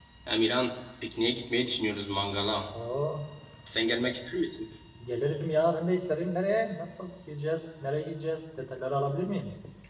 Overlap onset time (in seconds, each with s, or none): none